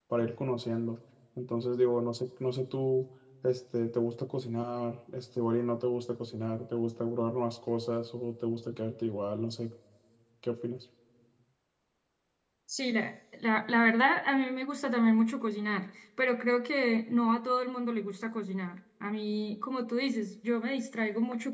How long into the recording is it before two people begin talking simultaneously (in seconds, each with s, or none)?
none